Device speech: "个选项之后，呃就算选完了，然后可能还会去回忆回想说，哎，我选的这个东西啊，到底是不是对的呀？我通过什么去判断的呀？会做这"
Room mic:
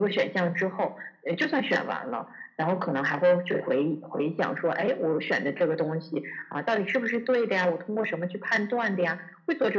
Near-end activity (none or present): none